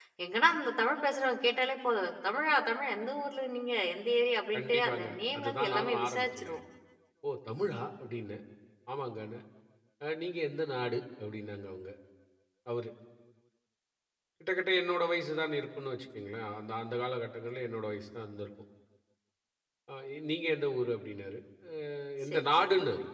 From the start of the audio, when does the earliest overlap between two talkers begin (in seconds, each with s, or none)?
4.5 s